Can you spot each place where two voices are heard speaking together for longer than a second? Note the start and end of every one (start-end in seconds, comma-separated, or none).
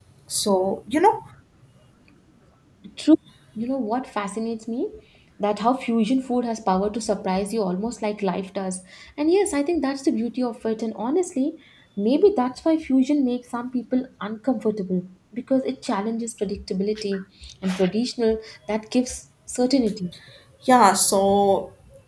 none